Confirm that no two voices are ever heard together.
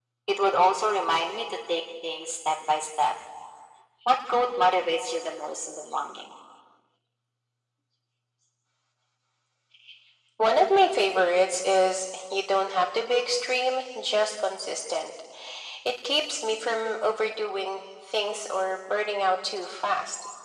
Yes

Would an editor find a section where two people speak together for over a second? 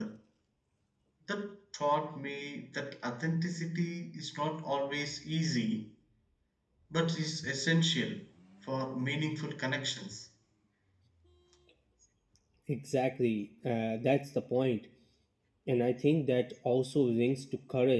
No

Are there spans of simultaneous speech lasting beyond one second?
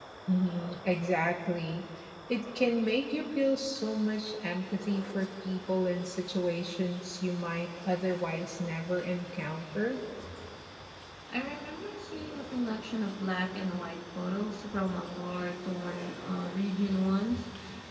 No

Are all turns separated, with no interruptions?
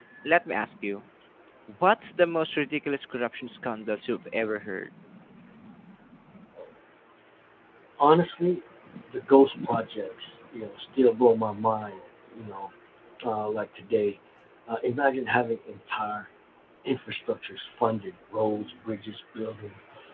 Yes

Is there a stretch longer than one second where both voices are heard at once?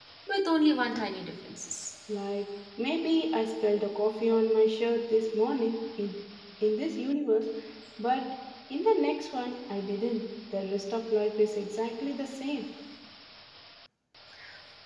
No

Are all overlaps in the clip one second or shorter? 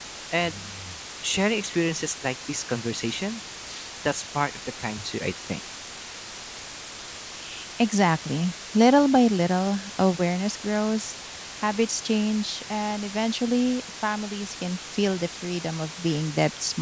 Yes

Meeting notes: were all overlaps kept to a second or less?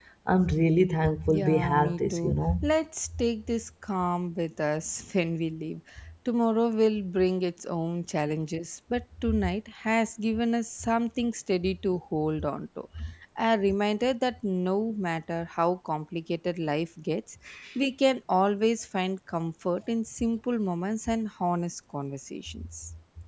No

